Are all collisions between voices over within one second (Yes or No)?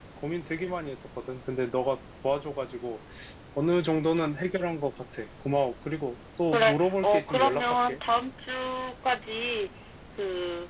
No